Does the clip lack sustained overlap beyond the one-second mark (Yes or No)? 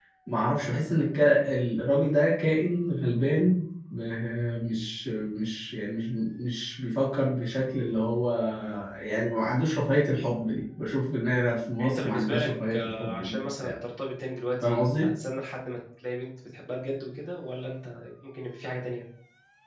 No